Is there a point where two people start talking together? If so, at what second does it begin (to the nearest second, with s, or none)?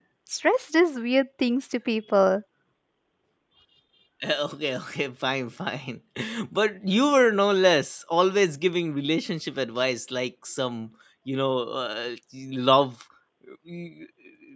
none